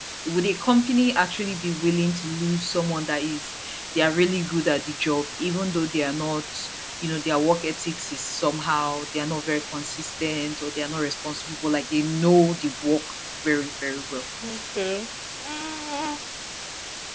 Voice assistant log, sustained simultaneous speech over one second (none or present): none